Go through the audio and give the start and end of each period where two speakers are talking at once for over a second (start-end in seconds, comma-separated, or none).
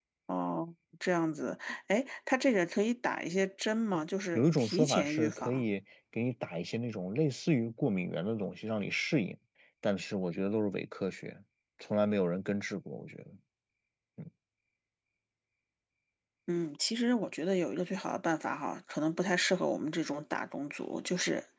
4.3-5.6